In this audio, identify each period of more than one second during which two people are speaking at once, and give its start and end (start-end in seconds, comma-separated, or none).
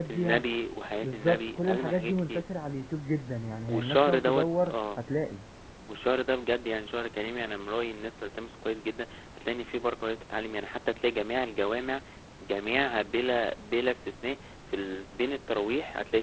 1.0-2.4, 3.7-5.0